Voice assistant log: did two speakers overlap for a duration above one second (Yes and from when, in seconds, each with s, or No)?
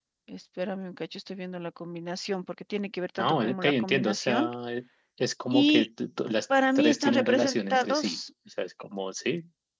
Yes, from 3.2 s